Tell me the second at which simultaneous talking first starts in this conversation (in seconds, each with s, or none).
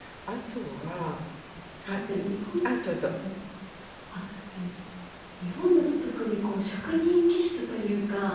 none